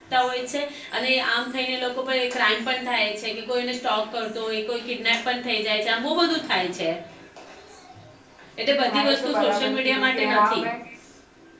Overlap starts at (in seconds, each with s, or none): 8.8 s